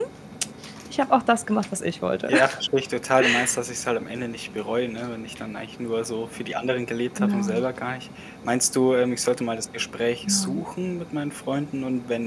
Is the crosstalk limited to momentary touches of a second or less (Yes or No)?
Yes